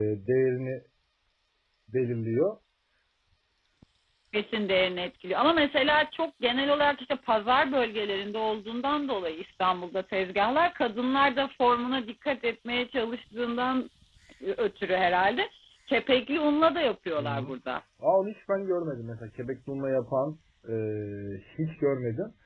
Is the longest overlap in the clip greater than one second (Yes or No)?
No